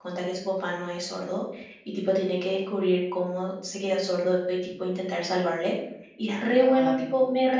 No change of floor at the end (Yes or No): Yes